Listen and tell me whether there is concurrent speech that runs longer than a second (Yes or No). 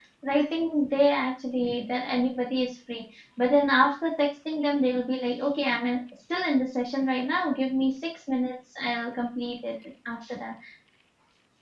No